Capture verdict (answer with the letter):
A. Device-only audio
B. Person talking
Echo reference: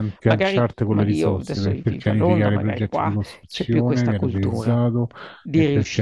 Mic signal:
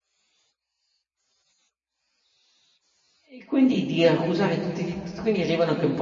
B